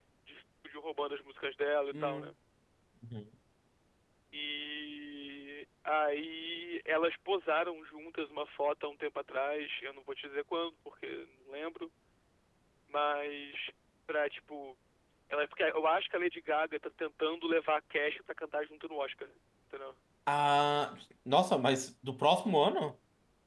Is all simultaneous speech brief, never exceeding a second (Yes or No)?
Yes